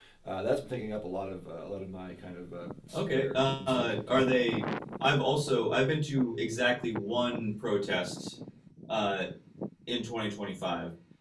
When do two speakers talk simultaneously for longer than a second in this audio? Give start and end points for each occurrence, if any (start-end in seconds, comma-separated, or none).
2.9-4.3